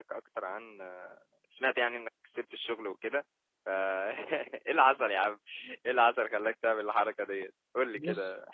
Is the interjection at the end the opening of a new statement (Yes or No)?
Yes